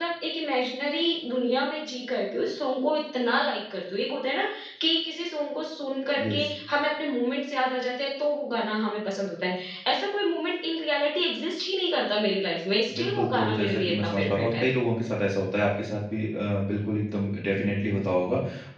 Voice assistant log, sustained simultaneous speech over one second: present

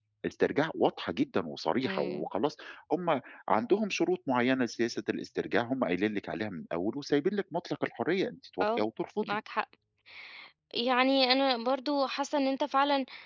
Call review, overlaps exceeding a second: none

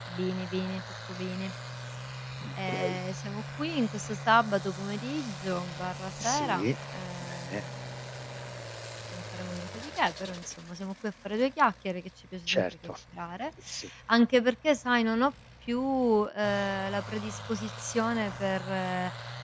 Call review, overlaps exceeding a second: none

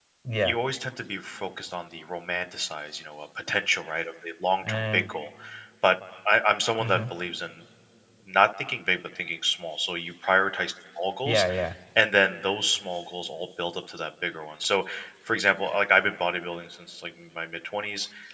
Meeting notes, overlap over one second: none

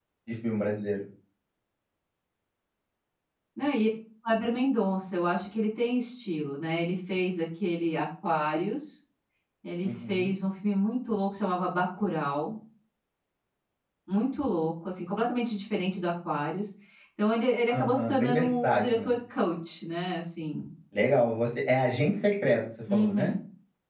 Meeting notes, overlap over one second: present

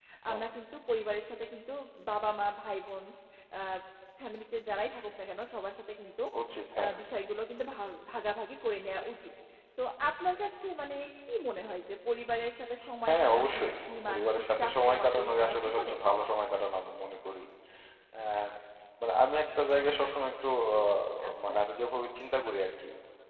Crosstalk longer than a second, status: present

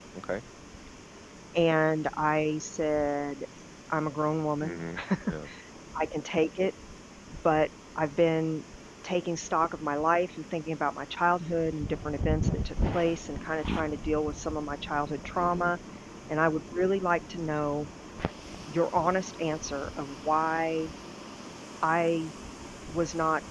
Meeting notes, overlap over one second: none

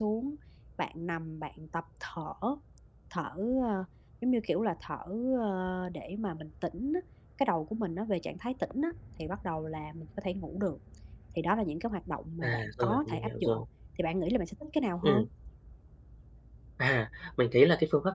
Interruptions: present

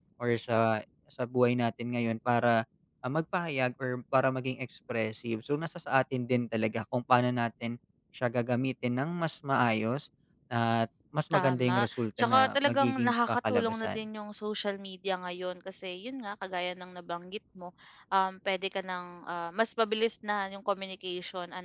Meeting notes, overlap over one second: present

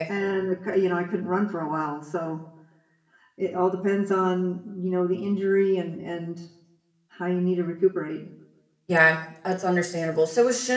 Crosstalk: none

